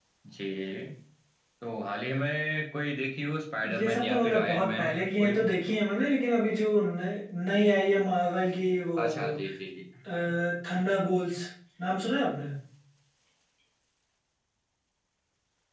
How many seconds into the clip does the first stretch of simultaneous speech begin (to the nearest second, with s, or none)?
4 s